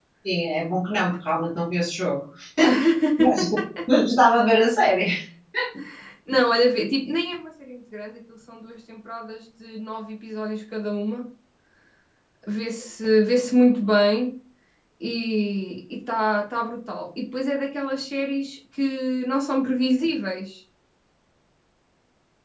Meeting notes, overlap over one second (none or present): none